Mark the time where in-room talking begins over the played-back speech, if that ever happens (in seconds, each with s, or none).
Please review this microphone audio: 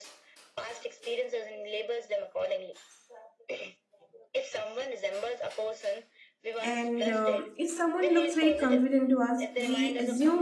6.6 s